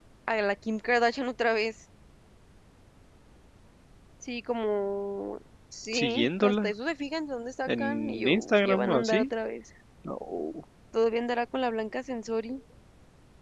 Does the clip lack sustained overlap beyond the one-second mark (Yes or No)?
No